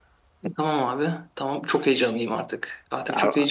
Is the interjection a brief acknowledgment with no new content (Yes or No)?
Yes